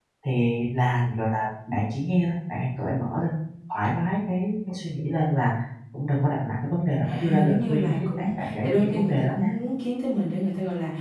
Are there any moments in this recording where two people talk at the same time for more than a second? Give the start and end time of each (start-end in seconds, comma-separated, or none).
7.0-9.5